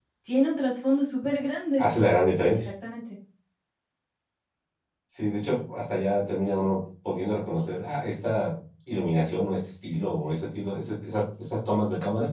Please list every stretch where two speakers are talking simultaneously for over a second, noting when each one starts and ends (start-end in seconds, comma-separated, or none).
none